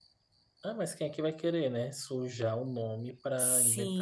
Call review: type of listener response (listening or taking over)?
taking over